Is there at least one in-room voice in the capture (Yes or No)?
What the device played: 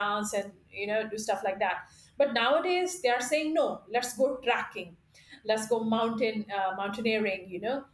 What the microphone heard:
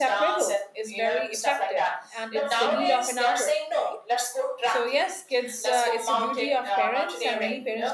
Yes